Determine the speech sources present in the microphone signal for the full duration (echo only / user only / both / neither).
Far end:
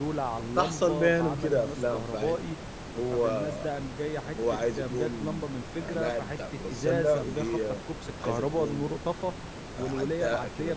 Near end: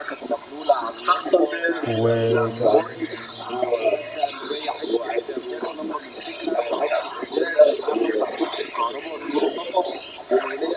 both